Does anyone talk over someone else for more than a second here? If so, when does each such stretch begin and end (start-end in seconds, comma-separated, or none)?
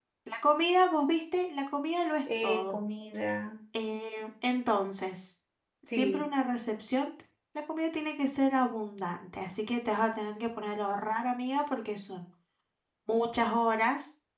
none